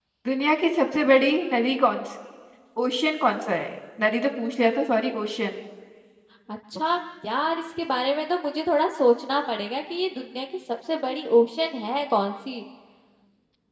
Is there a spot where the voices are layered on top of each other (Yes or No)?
No